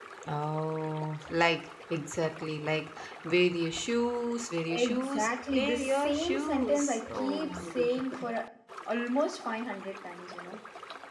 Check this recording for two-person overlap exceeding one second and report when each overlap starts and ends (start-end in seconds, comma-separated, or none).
4.7-8.2